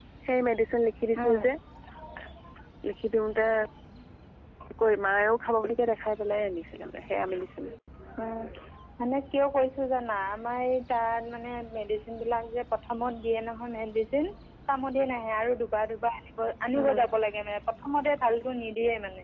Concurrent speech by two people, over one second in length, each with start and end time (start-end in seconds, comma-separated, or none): none